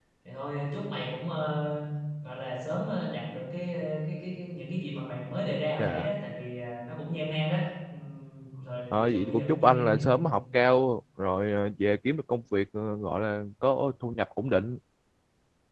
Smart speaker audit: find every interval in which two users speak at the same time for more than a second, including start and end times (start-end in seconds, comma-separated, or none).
8.9-10.2